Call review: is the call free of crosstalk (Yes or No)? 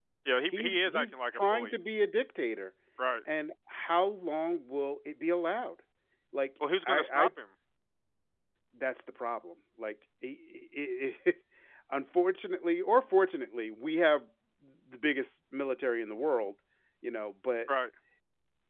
No